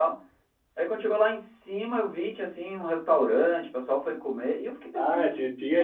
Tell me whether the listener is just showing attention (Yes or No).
No